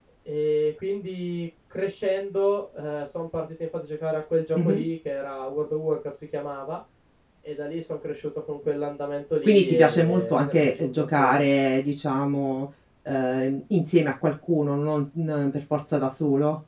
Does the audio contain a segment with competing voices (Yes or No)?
Yes